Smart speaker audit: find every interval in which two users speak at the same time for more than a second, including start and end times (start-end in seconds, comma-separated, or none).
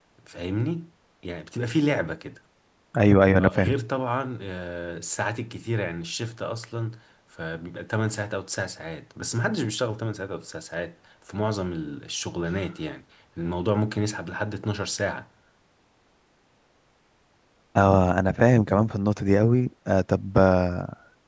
none